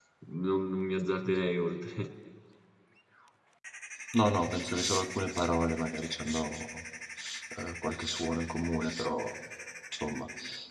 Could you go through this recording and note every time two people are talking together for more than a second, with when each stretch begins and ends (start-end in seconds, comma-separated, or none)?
none